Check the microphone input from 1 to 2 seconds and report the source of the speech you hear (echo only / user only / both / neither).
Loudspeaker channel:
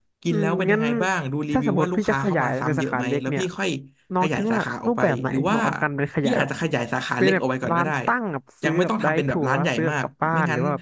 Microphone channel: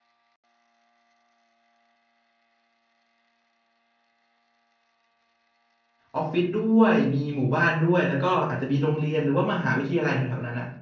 neither